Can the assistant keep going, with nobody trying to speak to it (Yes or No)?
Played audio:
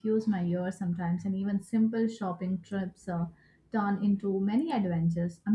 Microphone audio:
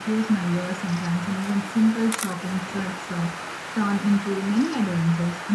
Yes